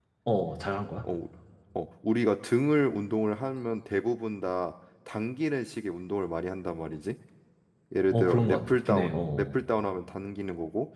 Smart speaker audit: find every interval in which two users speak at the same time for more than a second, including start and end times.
8.1-9.6

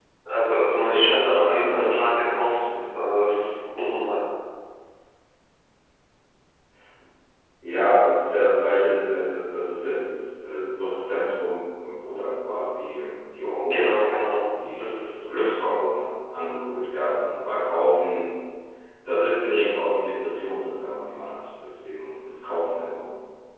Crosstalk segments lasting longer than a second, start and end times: 0.5-3.0

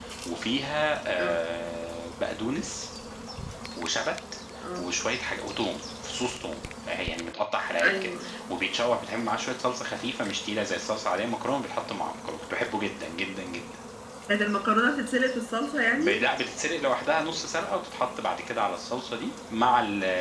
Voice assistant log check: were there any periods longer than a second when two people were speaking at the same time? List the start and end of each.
none

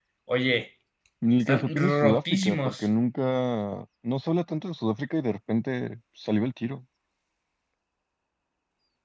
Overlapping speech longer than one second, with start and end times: 1.5-2.9

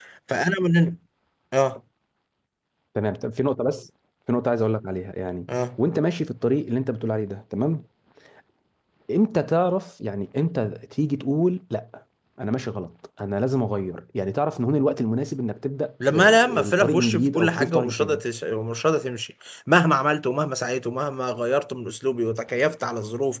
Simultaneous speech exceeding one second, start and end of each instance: 16.1-18.2

